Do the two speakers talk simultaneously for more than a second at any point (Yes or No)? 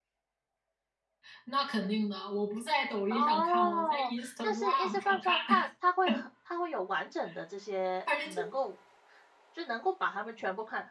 Yes